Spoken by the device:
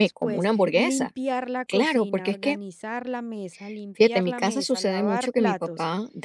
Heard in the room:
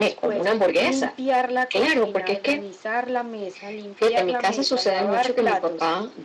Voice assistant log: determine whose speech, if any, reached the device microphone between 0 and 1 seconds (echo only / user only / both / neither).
echo only